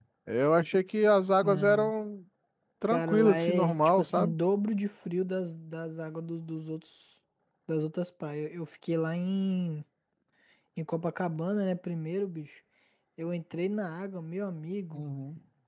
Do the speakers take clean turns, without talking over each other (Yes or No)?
No